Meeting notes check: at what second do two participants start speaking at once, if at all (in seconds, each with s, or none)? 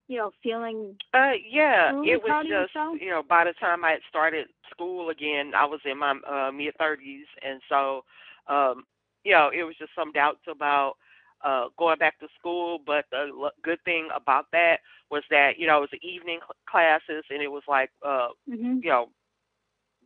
1.7 s